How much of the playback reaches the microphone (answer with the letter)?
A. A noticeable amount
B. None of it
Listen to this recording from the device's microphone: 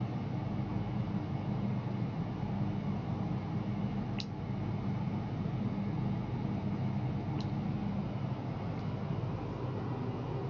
B